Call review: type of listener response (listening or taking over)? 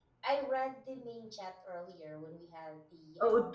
taking over